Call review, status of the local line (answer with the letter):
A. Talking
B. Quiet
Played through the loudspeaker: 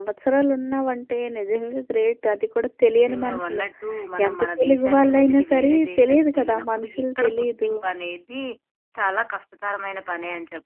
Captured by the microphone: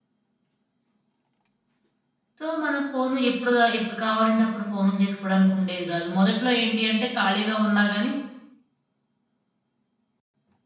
A